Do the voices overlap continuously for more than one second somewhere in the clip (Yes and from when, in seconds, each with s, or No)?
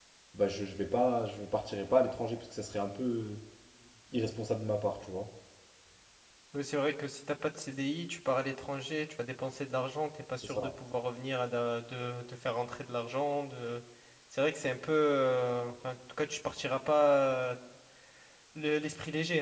No